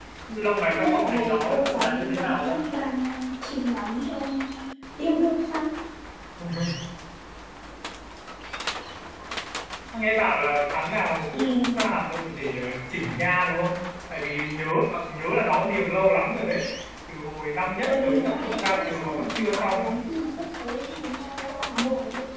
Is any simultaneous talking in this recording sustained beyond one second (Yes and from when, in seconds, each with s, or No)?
Yes, from 0.7 s